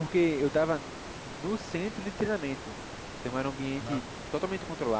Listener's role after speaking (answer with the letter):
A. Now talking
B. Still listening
B